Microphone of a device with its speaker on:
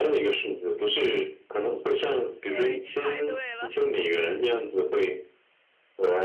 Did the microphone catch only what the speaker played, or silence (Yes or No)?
No